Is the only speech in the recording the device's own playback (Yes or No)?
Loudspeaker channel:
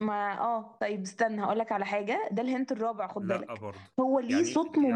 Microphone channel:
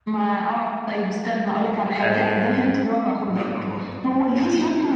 No